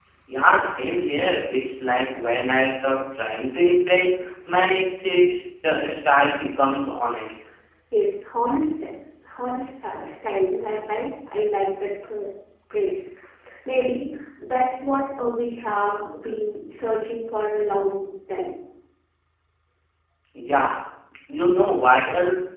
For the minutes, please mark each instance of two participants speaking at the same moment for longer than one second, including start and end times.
none

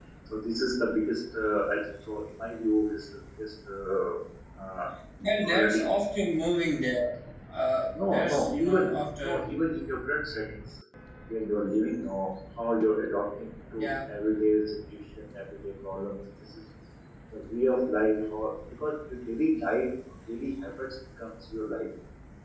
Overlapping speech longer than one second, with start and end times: 8.0-9.4

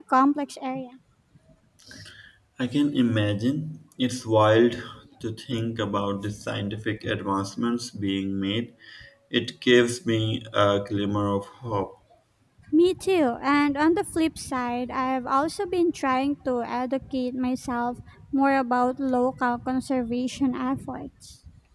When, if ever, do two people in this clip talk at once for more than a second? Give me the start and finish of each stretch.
none

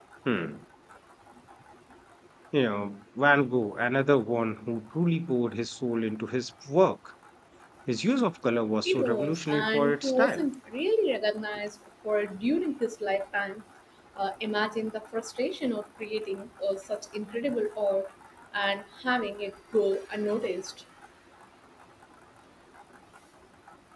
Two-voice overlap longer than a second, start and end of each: 8.8-10.4

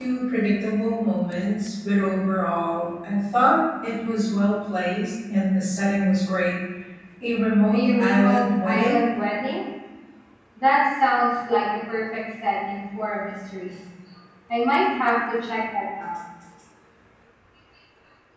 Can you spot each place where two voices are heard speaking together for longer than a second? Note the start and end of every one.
7.7-9.0

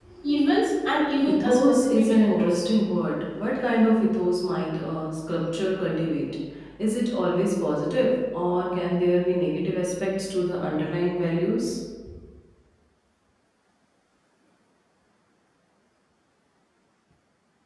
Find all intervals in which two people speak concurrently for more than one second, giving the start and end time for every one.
1.4-2.7

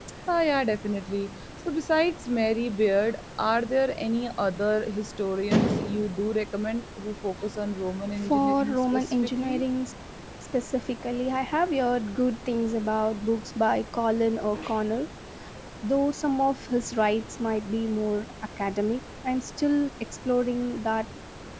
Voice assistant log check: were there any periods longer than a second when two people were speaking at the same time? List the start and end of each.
8.2-9.6

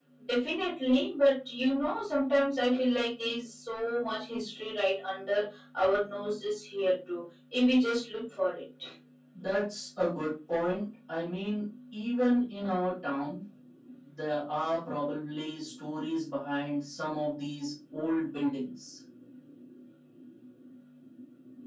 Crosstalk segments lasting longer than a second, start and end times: none

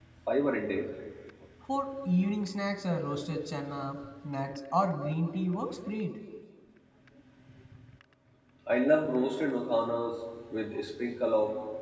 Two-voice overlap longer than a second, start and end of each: none

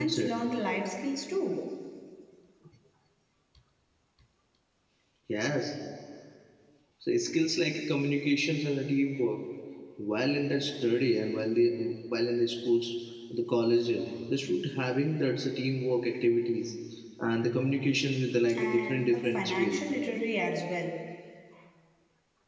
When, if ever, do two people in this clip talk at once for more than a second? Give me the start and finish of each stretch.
18.6-19.8

